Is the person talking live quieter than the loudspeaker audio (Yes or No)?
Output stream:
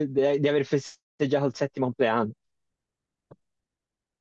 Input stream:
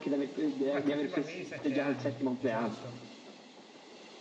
Yes